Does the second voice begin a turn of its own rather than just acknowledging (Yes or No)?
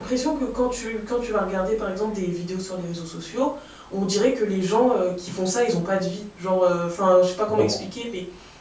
No